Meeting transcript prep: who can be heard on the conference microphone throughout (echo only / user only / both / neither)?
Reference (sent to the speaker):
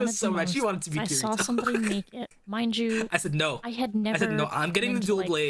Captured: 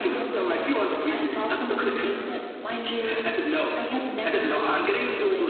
echo only